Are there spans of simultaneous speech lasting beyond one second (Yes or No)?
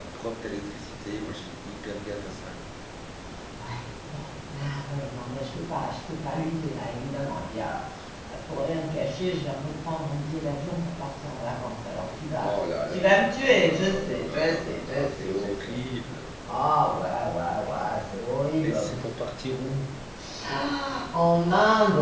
Yes